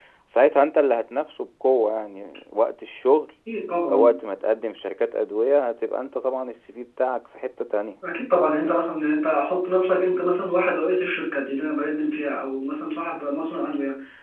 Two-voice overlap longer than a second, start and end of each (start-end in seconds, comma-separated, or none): none